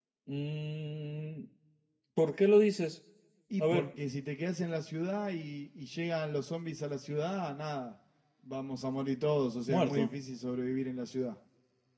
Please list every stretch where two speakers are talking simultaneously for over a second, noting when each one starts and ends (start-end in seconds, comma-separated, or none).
none